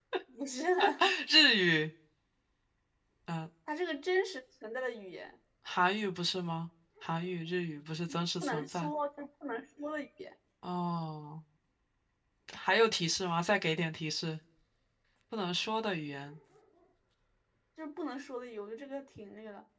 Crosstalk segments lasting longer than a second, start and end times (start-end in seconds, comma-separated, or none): none